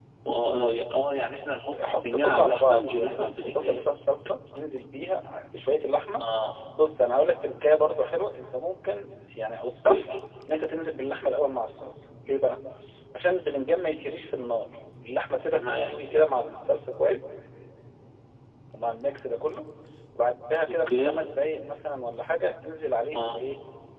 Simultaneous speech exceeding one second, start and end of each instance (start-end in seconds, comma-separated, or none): 1.8-3.9